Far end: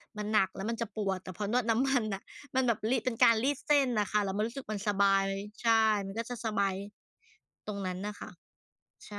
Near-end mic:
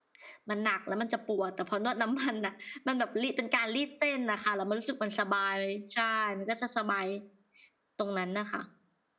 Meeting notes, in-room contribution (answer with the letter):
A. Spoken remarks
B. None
B